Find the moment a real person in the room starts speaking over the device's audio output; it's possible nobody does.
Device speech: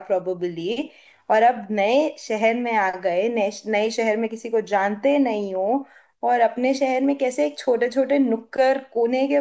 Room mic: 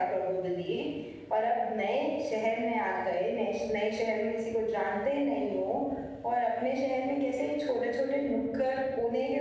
none

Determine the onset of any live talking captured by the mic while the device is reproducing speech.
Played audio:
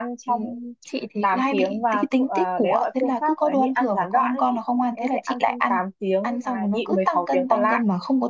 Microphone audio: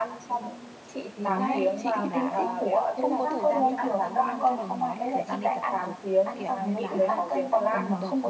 1.2 s

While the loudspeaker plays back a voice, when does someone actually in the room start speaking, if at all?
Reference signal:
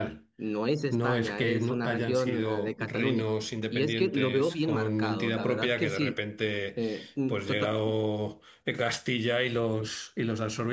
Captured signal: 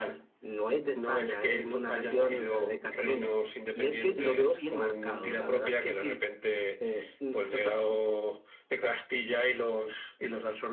none

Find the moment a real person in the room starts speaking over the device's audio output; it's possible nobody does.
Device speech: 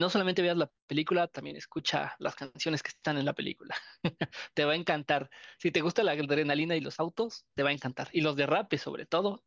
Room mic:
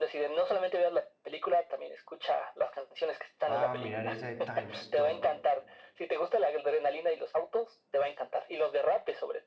3.5 s

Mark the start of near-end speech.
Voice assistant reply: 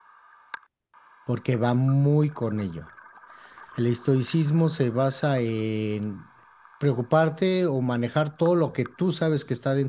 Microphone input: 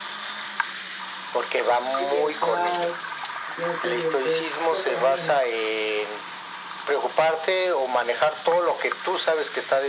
2.0 s

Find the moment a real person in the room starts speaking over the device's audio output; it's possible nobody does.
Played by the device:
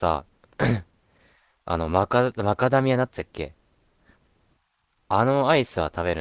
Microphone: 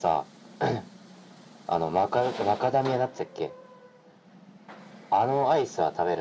none

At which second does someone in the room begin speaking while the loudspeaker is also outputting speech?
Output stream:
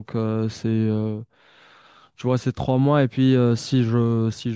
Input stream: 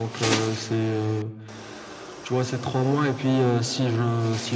none

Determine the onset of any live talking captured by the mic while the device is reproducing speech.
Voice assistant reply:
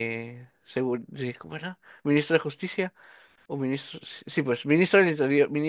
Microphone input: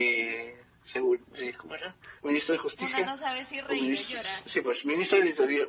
2.8 s

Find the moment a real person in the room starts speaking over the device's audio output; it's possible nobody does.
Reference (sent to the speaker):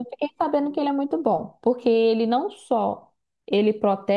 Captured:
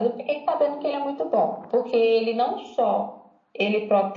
none

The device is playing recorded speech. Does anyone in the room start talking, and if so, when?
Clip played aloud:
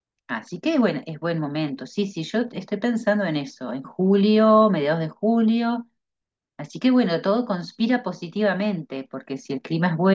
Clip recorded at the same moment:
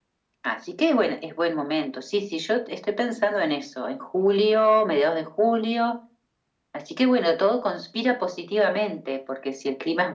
none

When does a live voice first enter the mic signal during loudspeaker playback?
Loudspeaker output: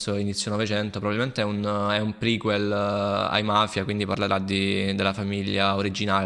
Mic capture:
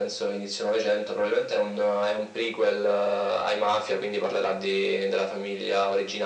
none

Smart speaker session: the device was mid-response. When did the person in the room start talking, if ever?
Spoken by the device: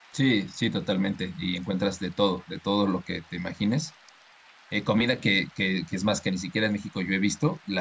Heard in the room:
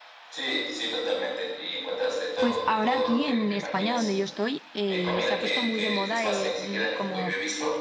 2.4 s

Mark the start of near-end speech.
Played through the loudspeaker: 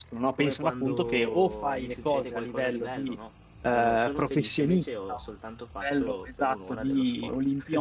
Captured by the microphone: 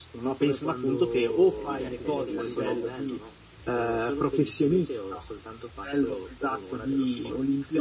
1.5 s

